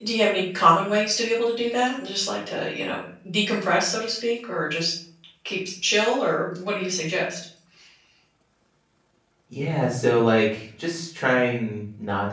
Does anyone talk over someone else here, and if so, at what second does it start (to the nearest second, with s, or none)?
none